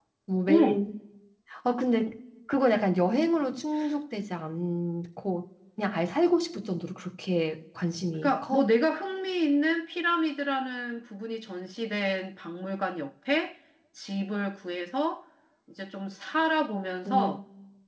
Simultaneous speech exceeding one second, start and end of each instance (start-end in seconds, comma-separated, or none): none